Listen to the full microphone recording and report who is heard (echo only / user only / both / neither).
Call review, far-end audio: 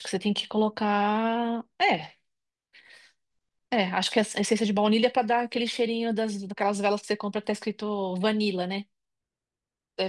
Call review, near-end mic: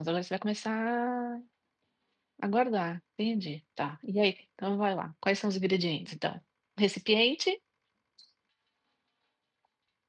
user only